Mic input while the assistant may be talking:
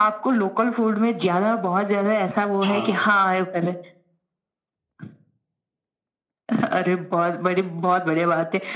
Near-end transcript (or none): हाँ।